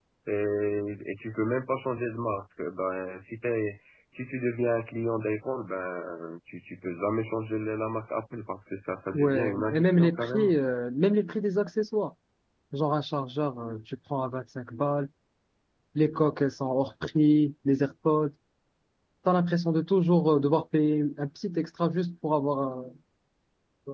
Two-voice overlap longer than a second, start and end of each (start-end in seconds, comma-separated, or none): 9.1-10.6